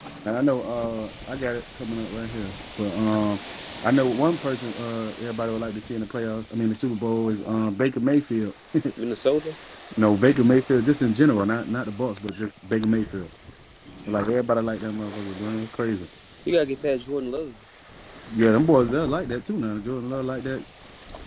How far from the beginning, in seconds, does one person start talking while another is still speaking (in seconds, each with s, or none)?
none